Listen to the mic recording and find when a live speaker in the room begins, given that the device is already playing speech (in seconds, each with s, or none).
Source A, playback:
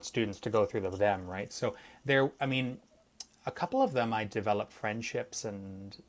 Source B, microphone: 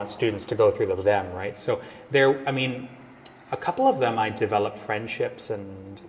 none